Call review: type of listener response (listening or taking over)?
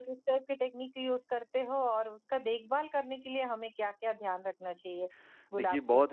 taking over